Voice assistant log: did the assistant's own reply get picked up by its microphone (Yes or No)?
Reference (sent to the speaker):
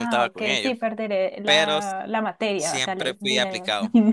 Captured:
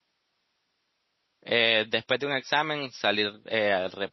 No